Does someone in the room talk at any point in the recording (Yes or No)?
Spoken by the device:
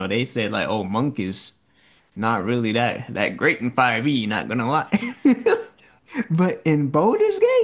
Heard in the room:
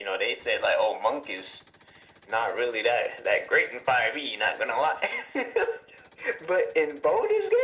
No